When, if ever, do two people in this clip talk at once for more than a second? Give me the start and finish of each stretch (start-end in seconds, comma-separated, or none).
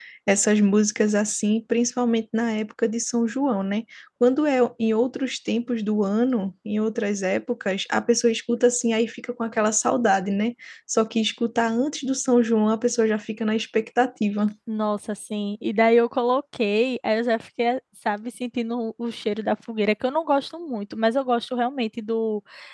none